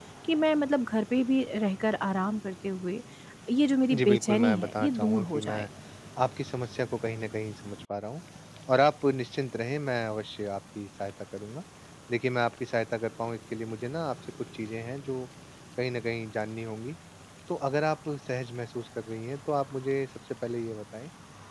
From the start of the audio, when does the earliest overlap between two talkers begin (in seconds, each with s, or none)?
3.9 s